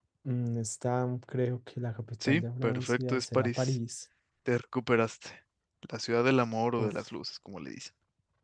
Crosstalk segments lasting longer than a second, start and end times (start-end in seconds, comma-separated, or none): 2.2-3.8